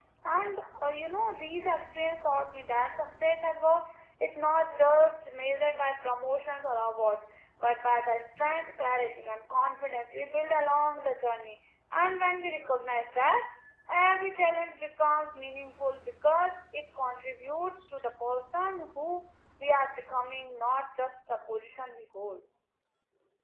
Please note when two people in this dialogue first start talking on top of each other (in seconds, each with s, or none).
none